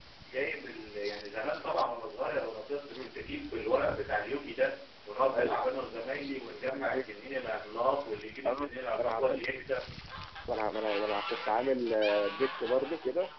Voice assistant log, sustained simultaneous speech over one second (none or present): none